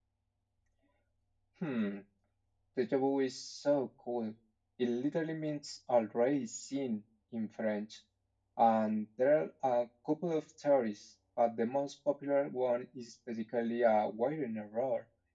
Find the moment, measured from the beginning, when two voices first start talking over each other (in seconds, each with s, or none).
none